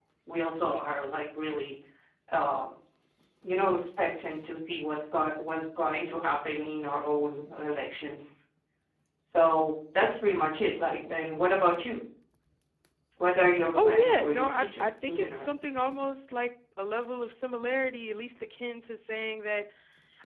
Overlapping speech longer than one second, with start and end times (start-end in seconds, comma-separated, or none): 13.8-15.5